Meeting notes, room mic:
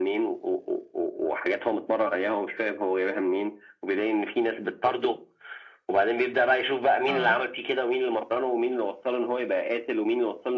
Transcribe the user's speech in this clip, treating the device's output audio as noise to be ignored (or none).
آه.